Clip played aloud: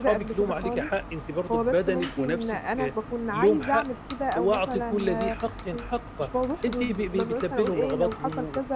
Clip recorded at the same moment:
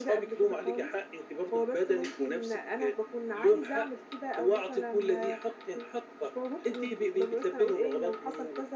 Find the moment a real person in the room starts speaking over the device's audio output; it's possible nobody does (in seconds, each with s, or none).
none